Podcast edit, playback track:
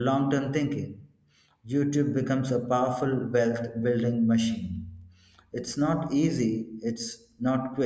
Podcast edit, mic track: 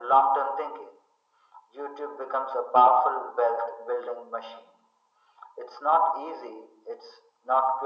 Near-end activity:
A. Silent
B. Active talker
A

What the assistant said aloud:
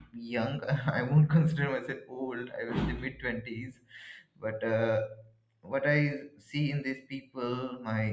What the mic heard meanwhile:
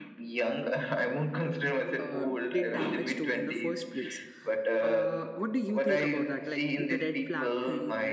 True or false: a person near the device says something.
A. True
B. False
A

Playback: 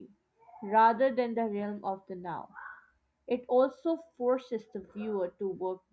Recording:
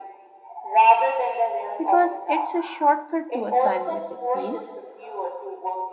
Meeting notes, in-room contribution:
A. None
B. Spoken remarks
B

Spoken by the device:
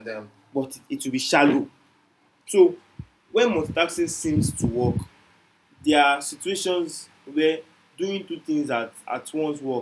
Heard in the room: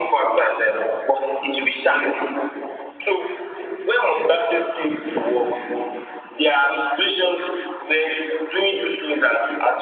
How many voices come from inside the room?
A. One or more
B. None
B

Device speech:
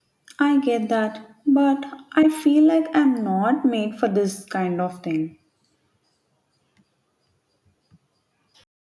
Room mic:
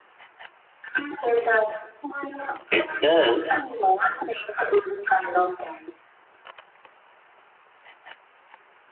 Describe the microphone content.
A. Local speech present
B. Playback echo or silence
A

